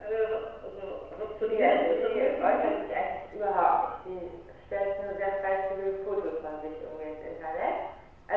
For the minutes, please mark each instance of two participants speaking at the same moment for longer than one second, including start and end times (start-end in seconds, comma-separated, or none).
1.4-2.8